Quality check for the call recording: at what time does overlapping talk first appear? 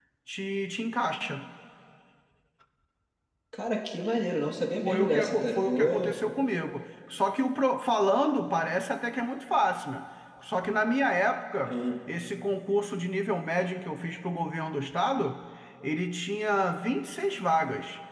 4.8 s

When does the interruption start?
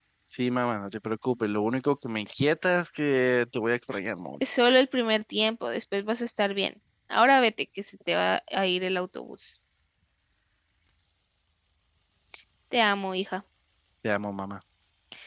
none

